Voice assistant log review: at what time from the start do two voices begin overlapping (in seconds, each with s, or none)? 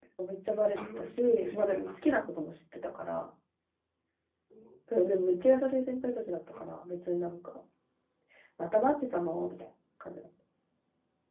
0.8 s